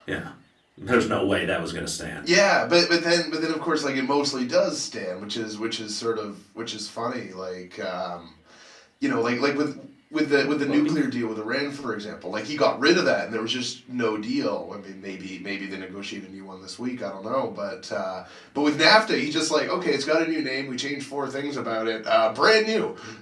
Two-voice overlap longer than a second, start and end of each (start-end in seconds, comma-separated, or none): none